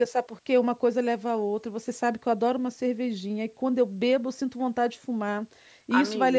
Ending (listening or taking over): listening